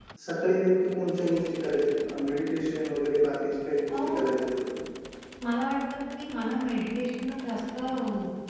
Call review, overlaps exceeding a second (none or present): none